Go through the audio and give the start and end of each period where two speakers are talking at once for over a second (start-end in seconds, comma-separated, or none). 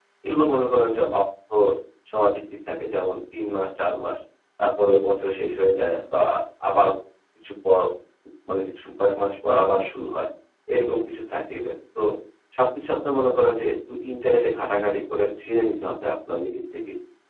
none